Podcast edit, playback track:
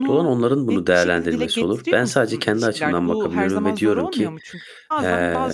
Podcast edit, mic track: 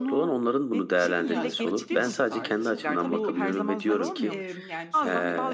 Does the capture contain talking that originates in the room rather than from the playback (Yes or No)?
Yes